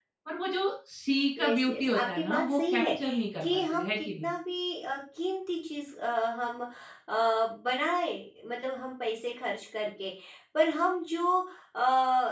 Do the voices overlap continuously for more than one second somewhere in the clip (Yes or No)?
Yes